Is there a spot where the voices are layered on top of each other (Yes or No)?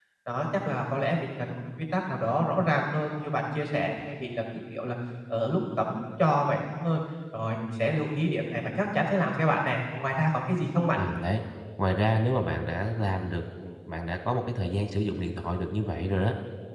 No